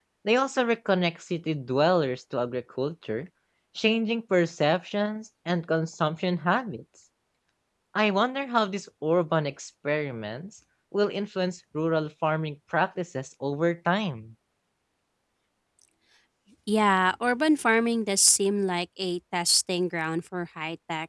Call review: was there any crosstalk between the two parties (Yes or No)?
No